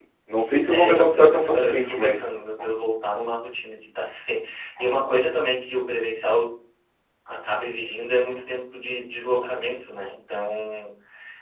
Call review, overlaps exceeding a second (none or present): present